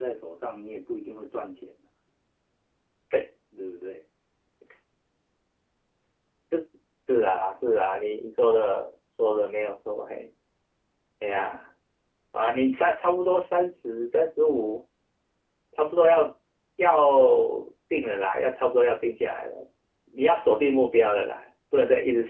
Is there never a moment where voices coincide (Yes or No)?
Yes